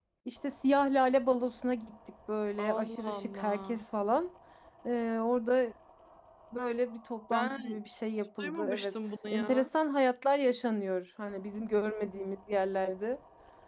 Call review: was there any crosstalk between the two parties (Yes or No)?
Yes